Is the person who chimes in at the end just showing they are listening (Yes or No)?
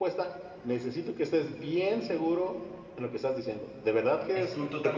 No